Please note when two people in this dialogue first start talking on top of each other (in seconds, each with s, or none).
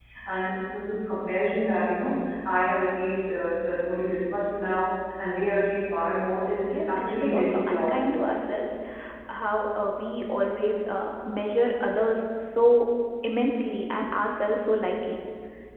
6.7 s